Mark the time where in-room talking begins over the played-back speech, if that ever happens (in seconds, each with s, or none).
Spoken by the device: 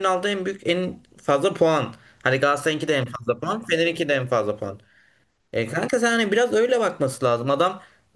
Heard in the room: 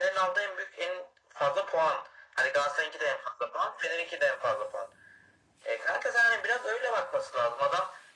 none